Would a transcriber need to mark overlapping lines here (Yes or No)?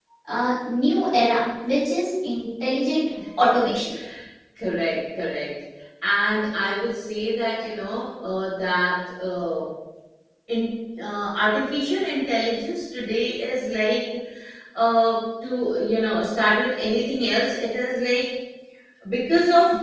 No